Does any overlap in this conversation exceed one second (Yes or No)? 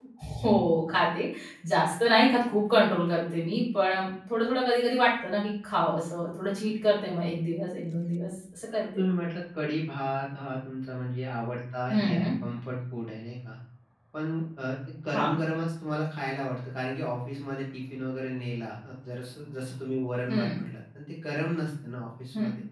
No